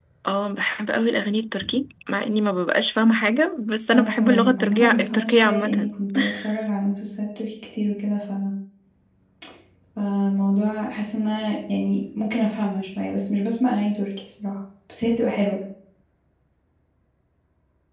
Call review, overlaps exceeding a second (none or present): present